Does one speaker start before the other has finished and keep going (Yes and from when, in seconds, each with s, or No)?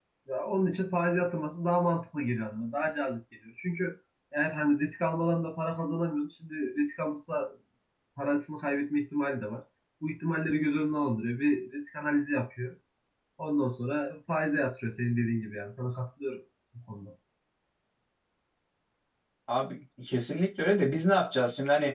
No